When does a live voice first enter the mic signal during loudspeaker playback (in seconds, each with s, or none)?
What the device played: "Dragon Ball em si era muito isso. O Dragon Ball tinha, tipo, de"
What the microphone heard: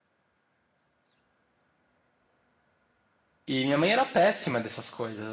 3.5 s